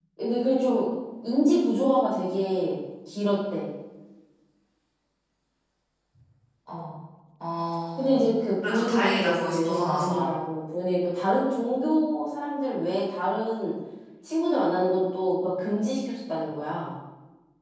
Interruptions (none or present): present